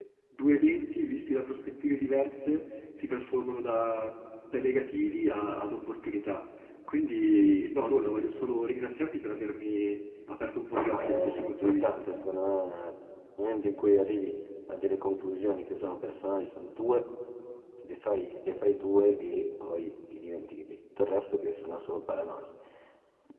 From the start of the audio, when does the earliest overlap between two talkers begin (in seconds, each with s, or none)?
10.7 s